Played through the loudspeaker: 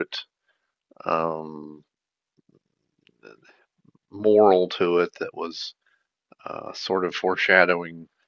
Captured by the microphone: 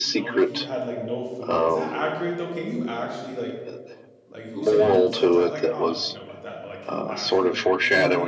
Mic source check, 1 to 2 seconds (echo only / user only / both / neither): both